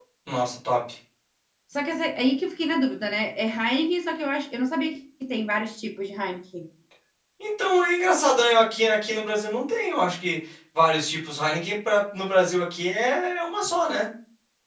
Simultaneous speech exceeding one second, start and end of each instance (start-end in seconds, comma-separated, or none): none